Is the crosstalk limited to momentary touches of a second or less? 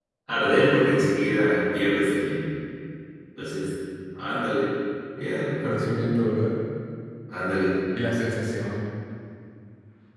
Yes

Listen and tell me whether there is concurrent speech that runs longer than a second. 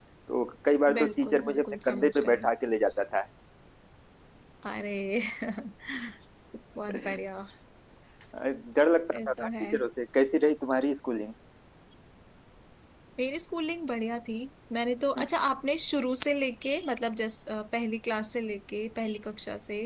Yes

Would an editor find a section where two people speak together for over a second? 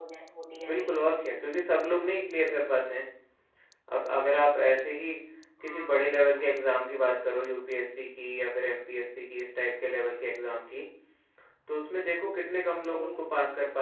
No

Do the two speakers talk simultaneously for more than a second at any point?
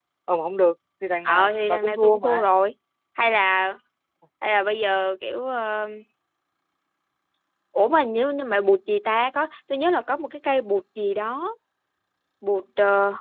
Yes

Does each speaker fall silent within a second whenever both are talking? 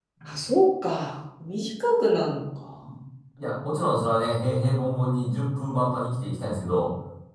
Yes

